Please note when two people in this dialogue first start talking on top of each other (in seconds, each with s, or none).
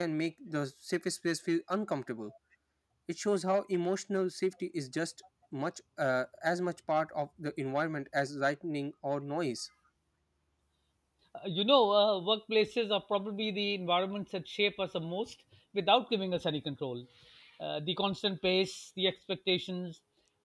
none